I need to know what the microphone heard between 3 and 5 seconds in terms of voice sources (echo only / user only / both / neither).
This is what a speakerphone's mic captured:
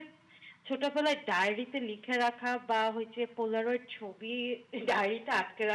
echo only